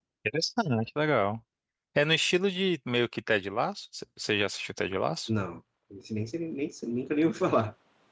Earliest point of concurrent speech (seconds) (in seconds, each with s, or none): none